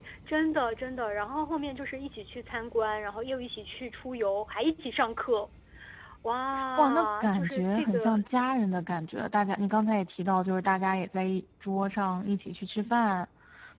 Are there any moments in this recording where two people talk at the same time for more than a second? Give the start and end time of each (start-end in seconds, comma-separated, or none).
6.8-8.1